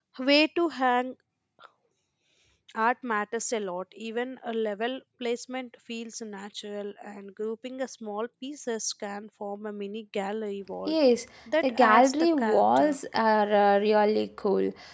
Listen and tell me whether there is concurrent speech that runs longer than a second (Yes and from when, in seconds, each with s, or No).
Yes, from 11.7 s